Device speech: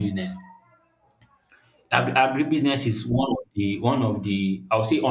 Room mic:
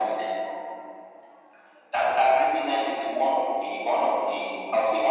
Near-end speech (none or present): none